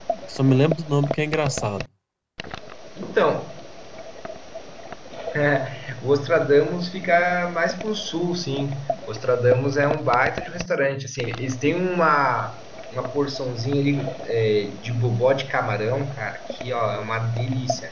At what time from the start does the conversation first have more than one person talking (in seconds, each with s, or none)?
none